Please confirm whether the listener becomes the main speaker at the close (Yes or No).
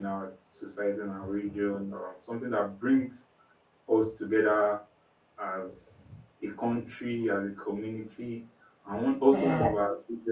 No